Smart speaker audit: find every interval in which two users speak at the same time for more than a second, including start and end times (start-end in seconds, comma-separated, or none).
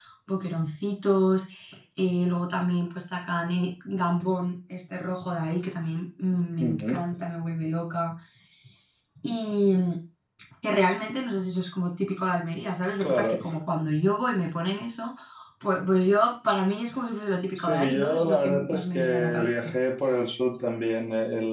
17.6-19.5